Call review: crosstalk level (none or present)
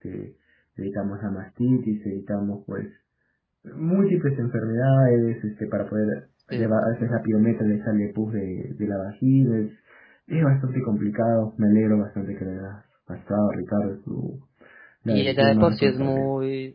present